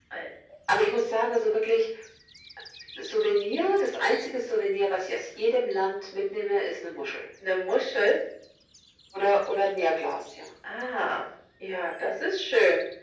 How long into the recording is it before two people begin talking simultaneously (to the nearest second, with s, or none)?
none